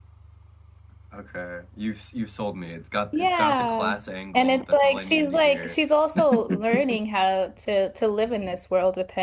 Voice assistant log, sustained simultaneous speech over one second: present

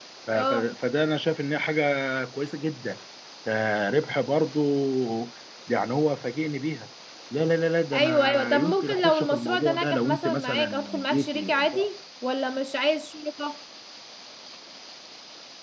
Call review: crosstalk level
present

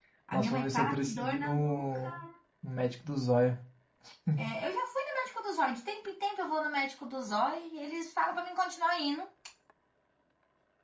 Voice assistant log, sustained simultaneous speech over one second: present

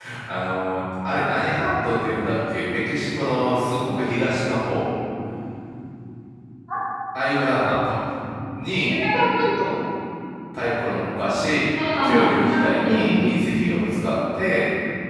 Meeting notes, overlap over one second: present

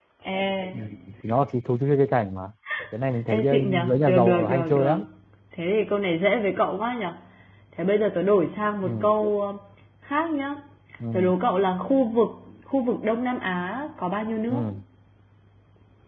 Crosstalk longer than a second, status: present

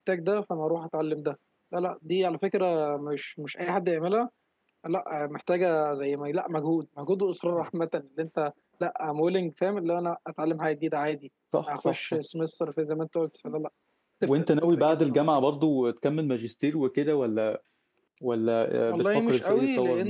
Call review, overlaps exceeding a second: present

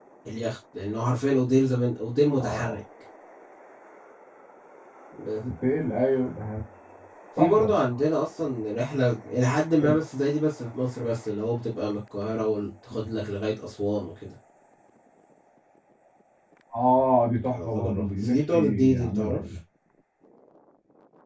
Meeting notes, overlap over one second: present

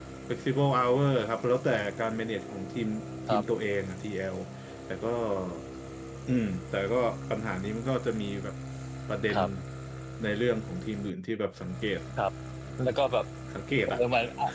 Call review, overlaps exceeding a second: none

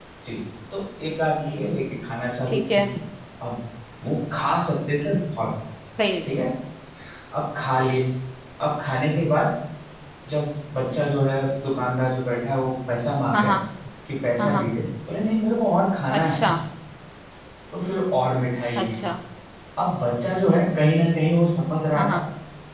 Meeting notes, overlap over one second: none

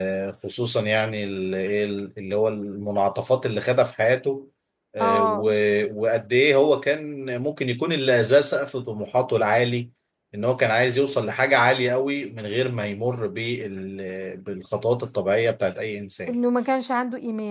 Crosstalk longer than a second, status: none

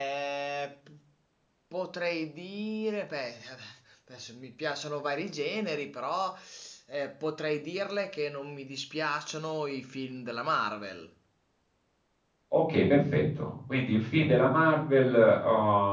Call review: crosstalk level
none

